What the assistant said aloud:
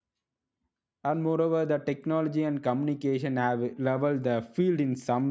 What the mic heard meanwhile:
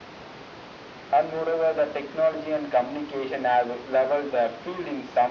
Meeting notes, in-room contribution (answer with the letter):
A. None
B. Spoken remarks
A